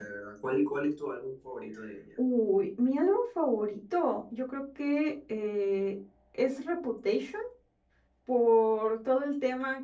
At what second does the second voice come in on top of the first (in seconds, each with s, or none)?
none